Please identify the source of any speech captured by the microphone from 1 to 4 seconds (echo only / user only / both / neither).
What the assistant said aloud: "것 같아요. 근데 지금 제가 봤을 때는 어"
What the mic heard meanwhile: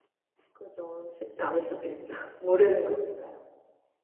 user only